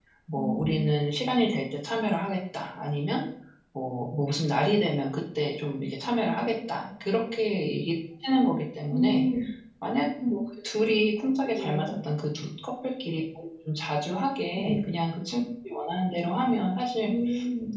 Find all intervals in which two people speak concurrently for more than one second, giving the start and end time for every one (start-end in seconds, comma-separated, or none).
none